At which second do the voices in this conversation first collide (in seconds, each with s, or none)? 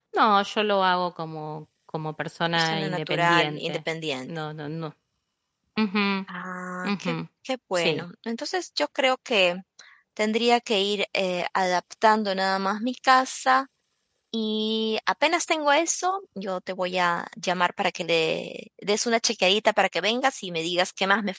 2.5 s